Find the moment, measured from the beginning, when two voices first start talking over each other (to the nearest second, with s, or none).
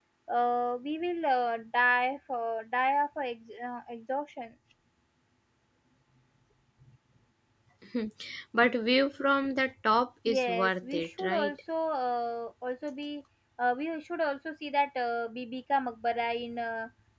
10 s